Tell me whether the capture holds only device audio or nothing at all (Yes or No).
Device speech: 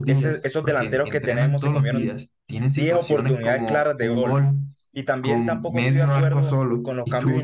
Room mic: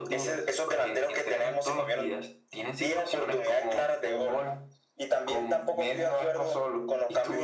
Yes